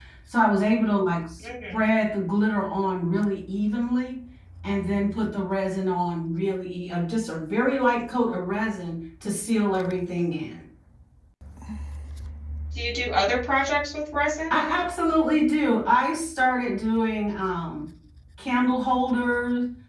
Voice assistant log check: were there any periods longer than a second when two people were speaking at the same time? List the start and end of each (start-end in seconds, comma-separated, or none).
none